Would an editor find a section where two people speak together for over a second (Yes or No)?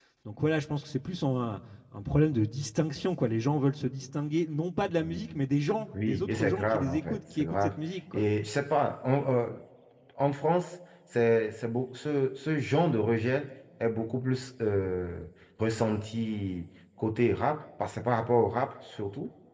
Yes